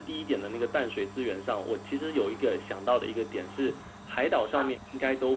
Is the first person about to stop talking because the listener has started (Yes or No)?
No